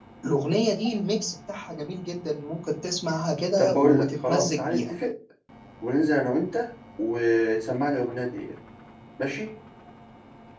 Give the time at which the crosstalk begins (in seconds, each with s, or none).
3.6 s